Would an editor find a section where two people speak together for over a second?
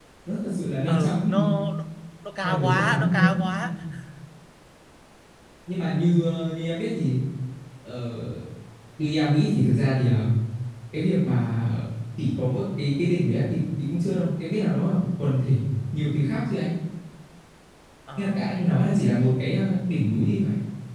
Yes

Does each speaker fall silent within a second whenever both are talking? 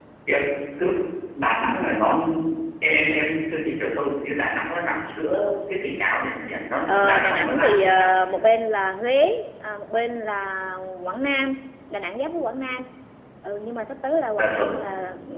No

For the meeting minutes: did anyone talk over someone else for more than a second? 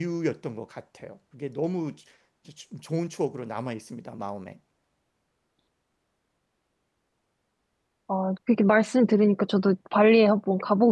No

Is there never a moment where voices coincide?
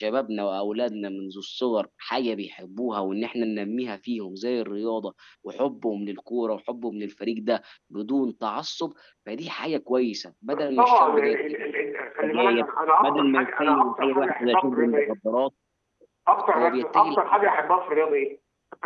No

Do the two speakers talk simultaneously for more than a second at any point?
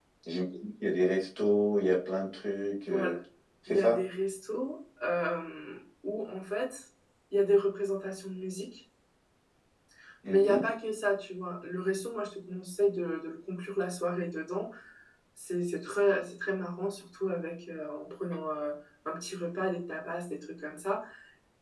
No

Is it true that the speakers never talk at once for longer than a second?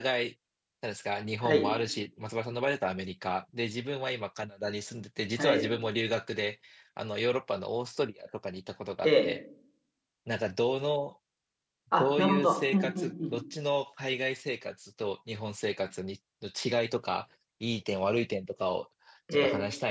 No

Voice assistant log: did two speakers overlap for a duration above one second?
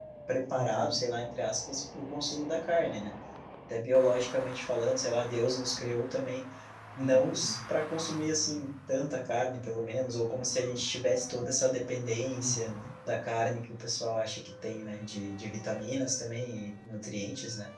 No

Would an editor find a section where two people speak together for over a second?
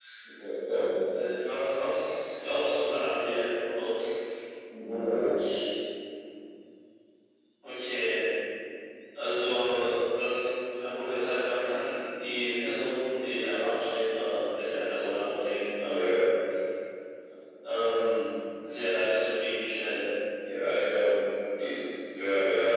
No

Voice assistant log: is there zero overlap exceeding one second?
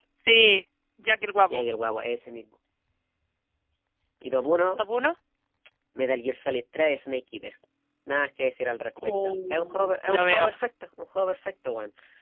No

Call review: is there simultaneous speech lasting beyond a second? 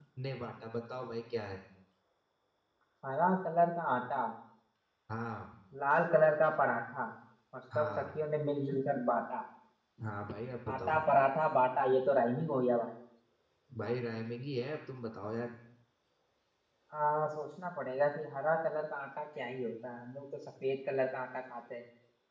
No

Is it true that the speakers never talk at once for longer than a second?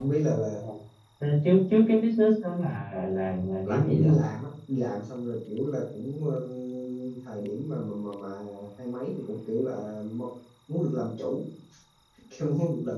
Yes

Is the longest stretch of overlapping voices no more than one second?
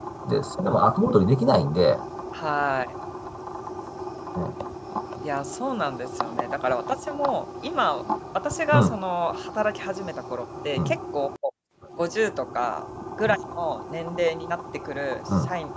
Yes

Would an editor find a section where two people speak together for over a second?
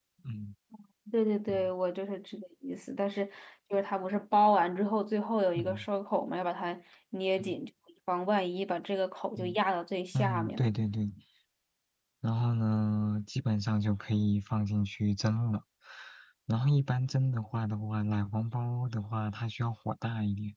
No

